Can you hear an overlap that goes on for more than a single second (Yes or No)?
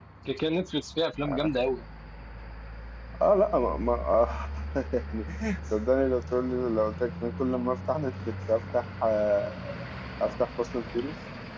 No